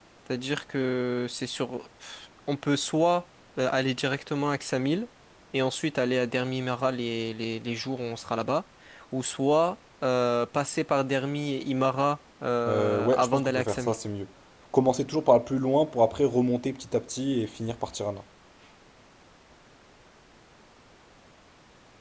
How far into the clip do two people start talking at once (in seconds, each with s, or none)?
12.7 s